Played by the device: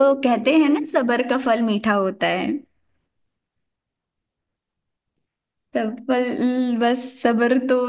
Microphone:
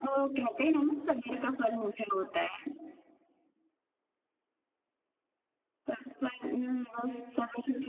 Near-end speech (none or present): none